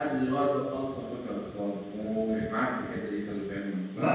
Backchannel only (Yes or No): No